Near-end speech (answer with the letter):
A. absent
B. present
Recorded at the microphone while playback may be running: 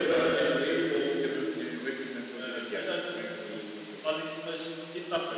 A